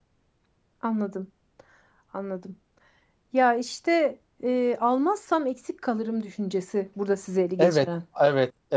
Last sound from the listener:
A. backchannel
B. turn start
B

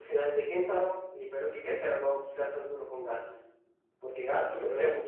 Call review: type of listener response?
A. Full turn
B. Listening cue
A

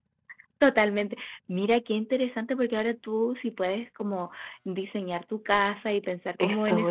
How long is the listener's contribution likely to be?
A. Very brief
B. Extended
B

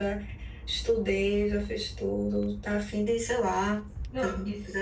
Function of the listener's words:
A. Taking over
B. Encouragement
A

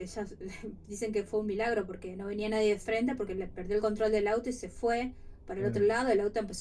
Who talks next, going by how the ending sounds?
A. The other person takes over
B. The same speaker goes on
B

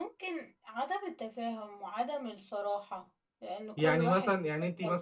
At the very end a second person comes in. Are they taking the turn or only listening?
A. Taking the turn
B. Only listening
A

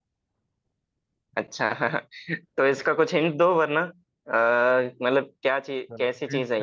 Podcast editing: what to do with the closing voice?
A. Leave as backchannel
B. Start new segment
B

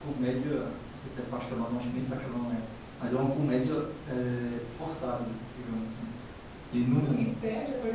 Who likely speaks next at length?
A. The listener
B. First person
A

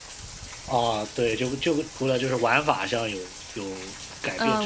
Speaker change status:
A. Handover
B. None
A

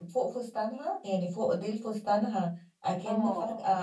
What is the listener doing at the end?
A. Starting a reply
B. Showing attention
B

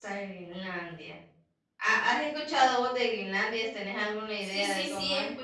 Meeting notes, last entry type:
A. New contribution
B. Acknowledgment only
A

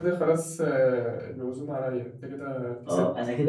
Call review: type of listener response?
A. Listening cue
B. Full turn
B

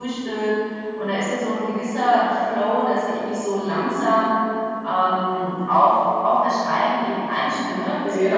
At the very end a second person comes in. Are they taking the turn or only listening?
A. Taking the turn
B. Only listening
A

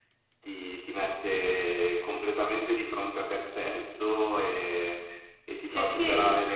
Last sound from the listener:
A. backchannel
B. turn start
A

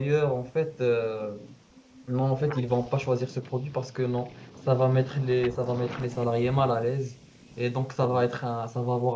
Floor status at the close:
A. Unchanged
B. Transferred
A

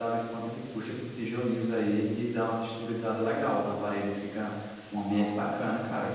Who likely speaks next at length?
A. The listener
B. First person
B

